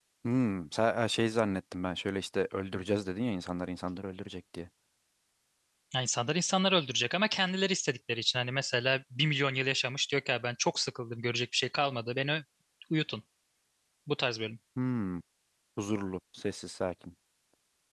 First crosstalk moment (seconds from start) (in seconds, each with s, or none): none